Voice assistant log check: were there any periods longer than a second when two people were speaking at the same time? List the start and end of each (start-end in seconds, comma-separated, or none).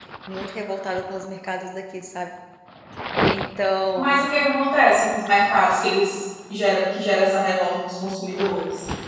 none